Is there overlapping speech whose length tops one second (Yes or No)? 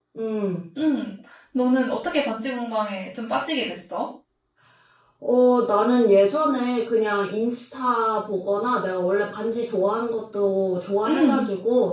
No